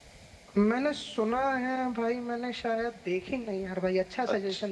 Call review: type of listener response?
taking over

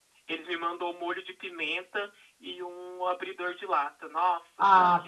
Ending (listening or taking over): taking over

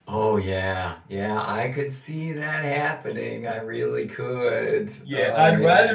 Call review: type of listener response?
taking over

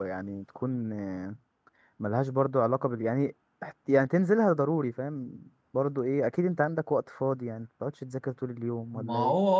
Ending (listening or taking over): taking over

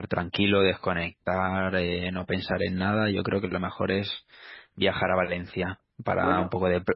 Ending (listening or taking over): listening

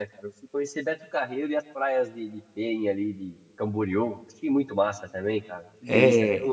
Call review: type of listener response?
listening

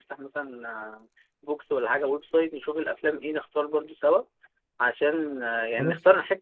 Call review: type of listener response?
listening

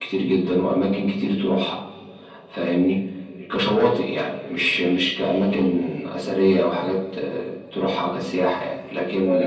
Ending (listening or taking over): listening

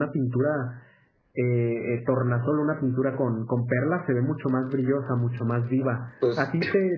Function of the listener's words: listening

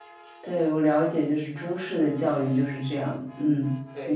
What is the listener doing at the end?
taking over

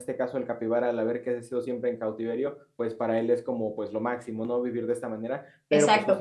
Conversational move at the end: taking over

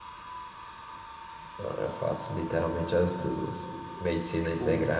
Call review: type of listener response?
listening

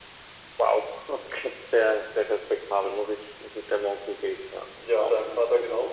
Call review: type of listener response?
taking over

